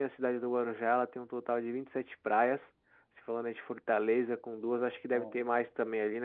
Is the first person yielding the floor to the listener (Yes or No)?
No